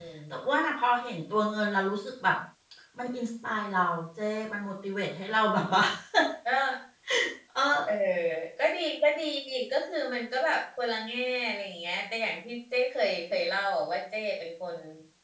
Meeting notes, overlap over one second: none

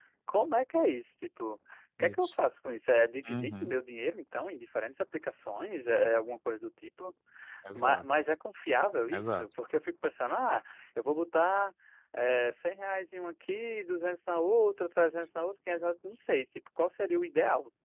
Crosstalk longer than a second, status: none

